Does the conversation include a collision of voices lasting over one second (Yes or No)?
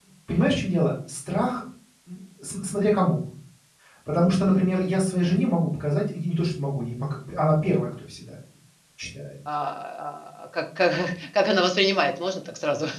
No